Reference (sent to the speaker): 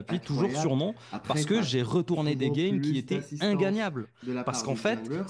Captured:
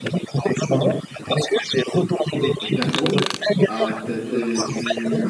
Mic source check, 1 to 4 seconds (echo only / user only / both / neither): both